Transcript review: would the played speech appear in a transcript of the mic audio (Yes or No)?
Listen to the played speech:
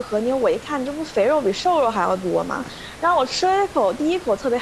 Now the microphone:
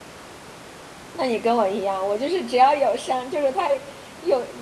No